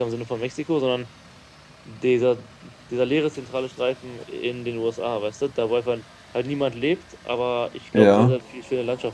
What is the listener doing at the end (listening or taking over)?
listening